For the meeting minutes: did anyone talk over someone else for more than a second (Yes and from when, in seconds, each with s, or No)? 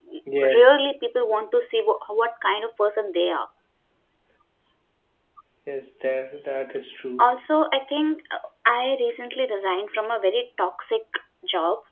No